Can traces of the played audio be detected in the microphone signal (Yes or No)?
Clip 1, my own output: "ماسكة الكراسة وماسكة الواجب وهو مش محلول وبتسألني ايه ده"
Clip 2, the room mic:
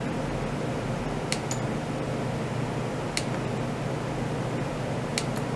No